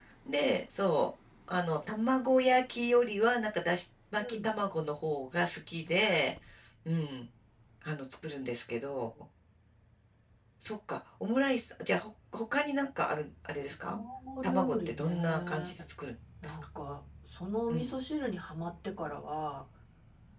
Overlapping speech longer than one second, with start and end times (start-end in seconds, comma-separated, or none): 14.4-15.7